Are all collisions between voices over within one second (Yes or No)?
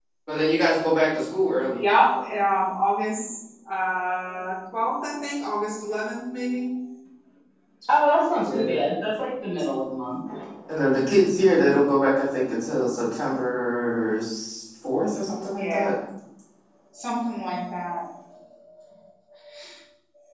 Yes